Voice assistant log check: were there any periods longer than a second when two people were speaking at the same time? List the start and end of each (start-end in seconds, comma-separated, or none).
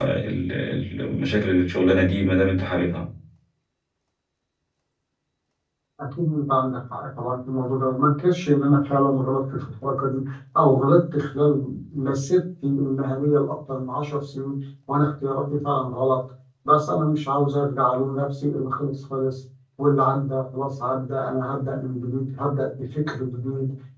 none